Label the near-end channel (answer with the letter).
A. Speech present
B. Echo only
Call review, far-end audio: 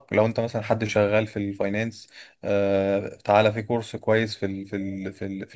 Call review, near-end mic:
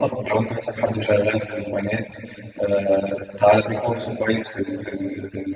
B